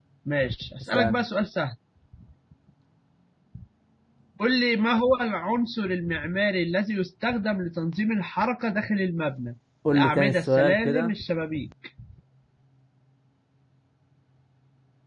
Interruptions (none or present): present